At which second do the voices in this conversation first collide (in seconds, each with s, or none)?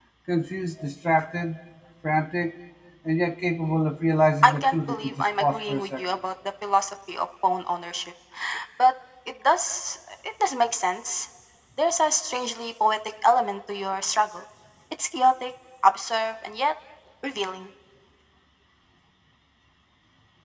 4.4 s